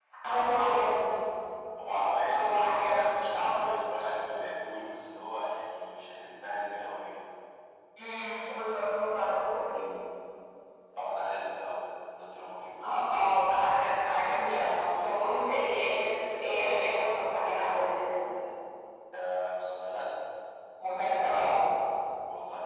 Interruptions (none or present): present